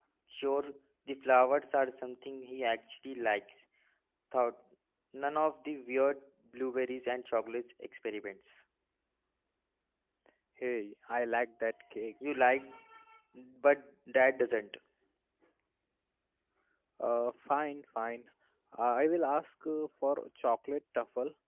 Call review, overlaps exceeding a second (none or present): none